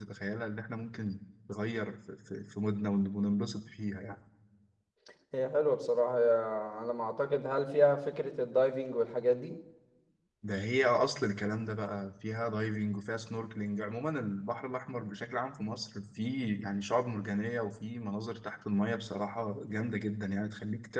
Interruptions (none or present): none